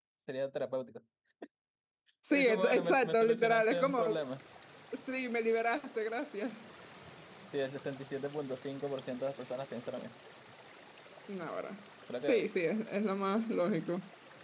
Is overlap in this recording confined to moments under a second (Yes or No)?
No